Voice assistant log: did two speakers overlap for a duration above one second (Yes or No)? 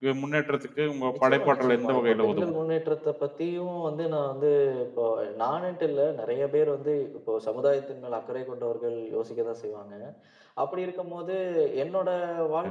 Yes